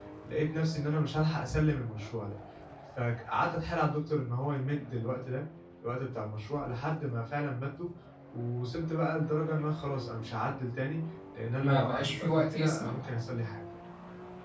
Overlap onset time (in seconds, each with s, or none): 11.6 s